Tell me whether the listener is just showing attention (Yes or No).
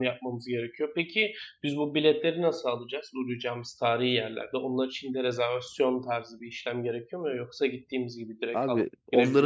No